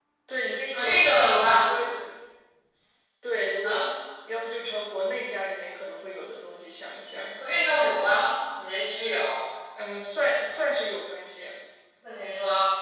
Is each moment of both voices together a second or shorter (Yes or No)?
Yes